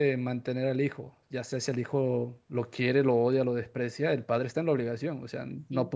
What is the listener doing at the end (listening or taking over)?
listening